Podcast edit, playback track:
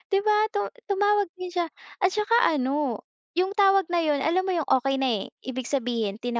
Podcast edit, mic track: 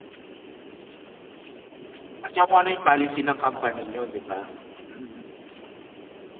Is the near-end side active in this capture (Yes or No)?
Yes